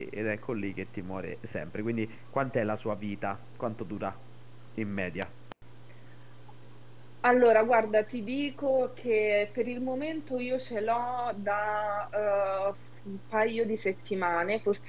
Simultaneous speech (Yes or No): No